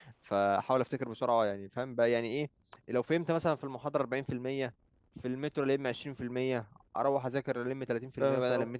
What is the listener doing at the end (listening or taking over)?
listening